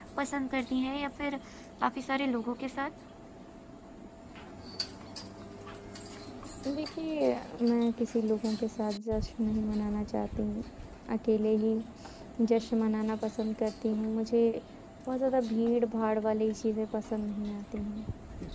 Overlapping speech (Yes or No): No